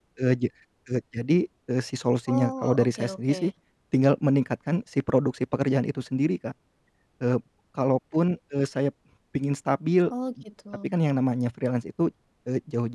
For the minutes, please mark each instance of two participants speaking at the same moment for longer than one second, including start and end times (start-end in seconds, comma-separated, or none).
2.3-3.5